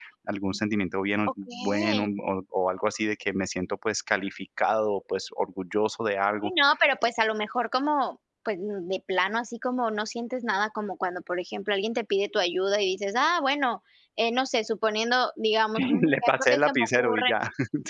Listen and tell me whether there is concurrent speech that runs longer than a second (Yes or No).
Yes